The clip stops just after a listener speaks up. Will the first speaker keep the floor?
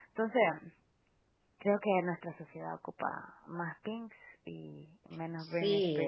No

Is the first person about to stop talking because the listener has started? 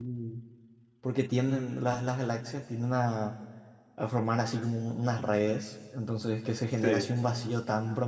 No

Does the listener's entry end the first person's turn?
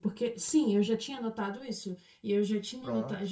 No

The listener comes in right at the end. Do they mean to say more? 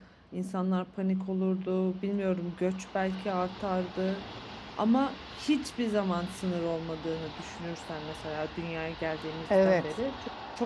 No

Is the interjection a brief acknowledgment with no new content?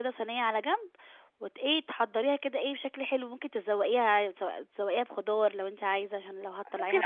No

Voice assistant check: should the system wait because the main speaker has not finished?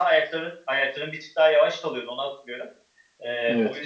Yes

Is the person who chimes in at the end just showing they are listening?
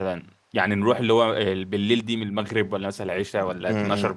No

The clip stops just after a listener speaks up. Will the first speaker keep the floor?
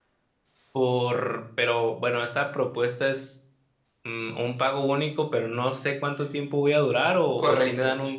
No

